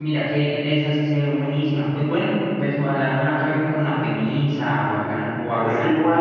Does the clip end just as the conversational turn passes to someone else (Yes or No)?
Yes